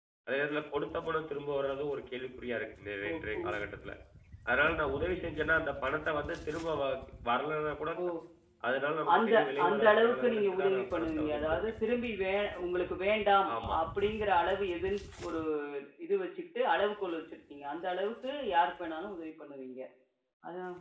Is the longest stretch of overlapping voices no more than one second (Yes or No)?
No